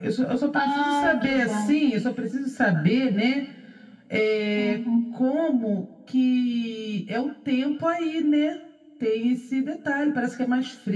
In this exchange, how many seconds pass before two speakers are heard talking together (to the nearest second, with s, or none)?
1 s